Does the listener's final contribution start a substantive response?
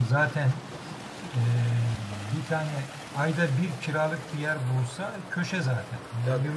No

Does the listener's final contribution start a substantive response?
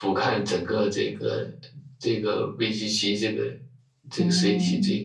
Yes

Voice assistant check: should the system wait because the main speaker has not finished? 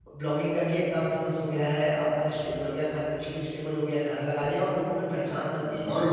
No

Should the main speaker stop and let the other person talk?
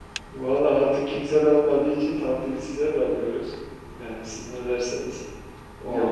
Yes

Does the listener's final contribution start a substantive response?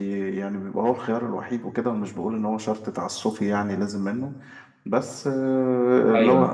No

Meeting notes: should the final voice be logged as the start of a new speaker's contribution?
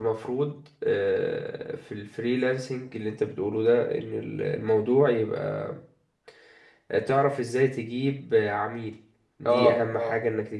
No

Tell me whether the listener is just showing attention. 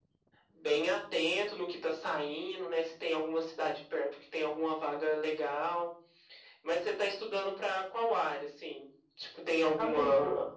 Yes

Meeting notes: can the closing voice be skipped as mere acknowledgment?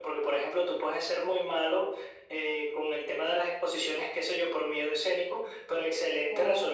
Yes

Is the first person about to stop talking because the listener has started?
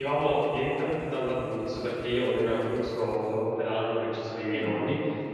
No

